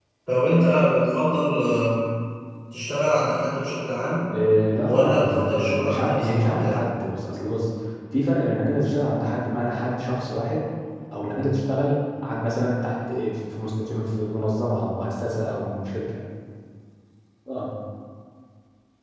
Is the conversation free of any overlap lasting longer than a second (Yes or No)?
No